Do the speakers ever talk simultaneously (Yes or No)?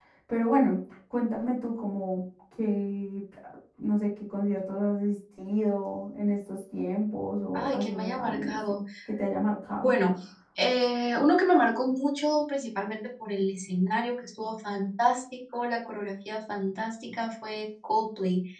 Yes